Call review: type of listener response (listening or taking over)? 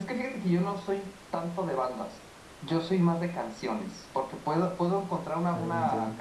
listening